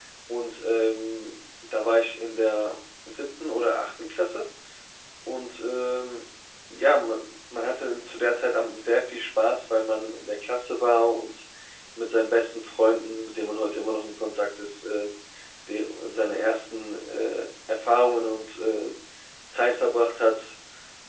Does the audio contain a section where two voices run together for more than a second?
No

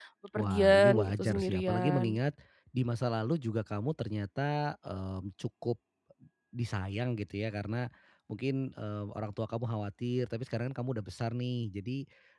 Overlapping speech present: Yes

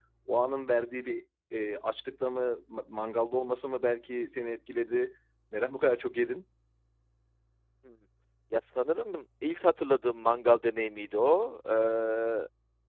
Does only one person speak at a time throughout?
Yes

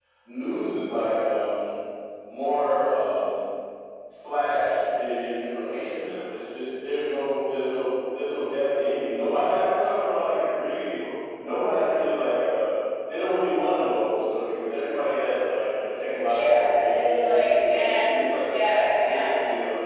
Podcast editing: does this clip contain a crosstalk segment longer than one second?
Yes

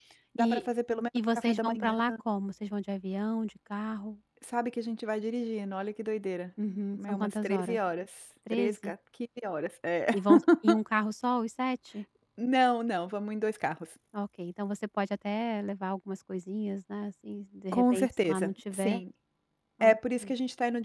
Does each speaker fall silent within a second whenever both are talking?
No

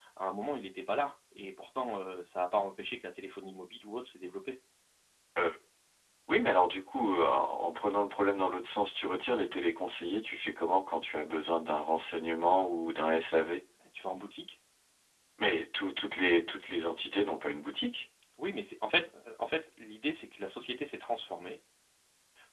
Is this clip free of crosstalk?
Yes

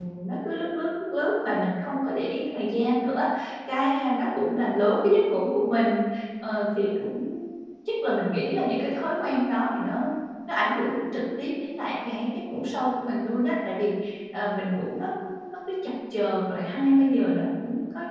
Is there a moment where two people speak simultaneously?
No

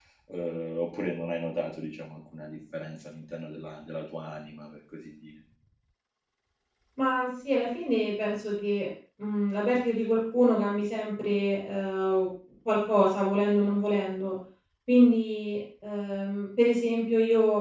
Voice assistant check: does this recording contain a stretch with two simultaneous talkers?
No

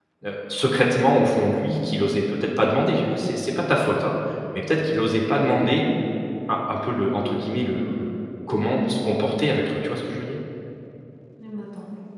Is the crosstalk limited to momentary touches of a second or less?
Yes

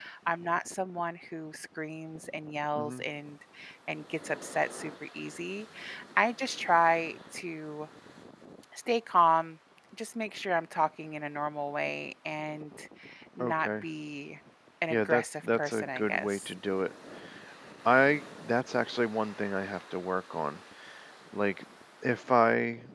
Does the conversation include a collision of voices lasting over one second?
Yes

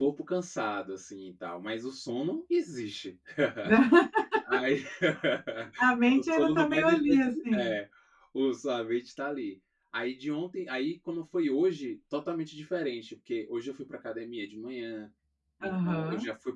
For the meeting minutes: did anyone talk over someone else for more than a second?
Yes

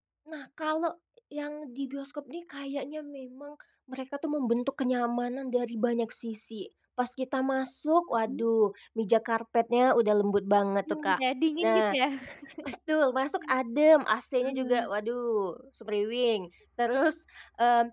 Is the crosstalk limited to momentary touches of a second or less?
Yes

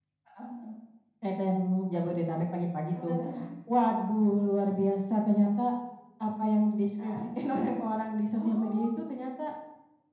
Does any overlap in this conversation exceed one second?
No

